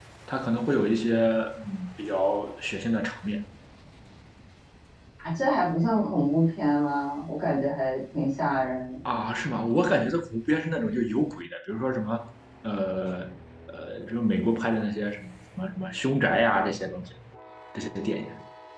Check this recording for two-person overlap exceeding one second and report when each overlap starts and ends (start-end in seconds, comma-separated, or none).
none